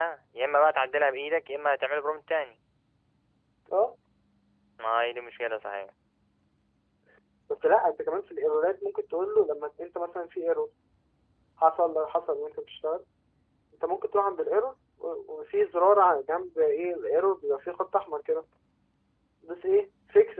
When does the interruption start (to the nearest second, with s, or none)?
none